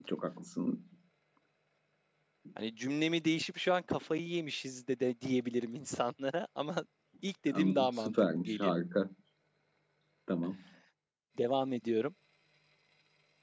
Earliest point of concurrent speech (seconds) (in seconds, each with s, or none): 7.5 s